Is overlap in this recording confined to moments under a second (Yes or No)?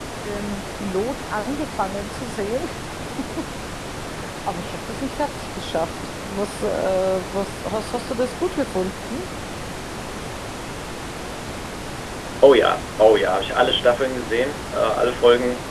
Yes